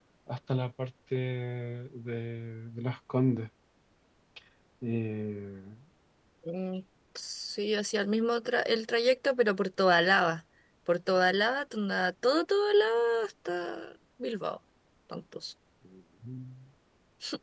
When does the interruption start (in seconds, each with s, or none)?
none